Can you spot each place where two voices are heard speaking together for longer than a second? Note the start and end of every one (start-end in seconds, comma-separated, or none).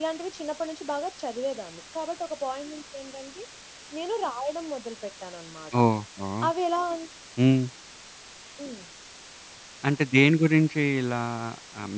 none